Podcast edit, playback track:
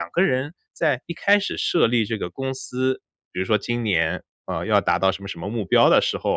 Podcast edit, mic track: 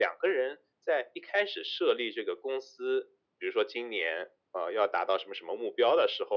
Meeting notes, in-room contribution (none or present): none